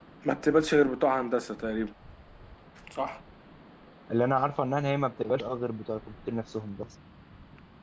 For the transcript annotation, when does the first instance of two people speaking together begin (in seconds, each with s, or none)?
none